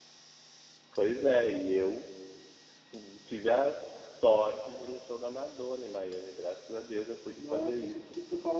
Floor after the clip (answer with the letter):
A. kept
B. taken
B